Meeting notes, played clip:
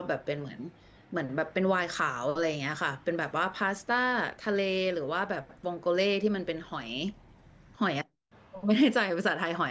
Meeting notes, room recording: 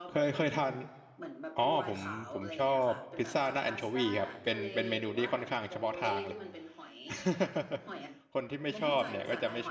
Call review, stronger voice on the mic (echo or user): user